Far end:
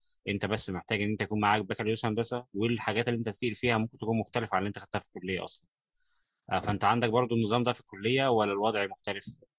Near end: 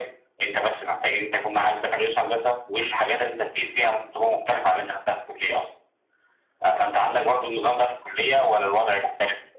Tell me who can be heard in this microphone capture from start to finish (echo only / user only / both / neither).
echo only